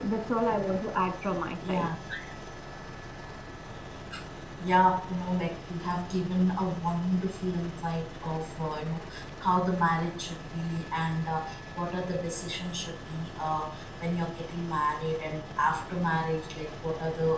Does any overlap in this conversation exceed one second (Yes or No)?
No